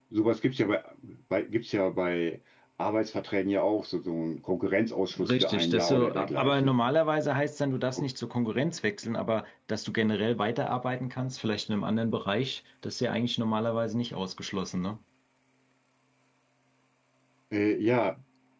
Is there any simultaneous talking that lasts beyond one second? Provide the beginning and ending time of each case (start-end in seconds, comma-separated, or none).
5.2-6.7